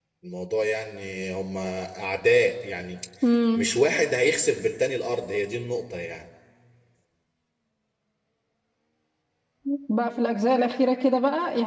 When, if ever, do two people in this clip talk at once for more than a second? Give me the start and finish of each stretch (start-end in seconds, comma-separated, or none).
none